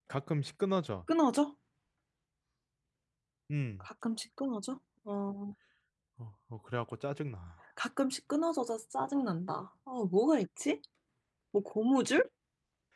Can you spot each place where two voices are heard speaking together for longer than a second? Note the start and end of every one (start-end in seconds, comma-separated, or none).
none